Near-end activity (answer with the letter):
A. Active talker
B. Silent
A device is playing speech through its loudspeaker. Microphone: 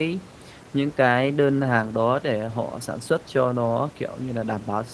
A